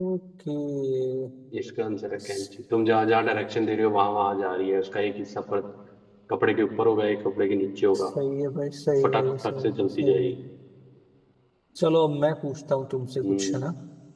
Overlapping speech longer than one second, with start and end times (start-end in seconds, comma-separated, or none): 9.0-10.3